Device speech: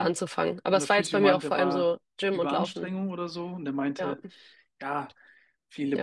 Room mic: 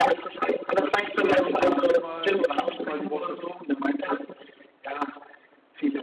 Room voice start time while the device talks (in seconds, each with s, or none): 1.0 s